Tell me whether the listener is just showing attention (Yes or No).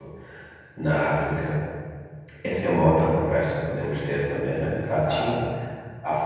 Yes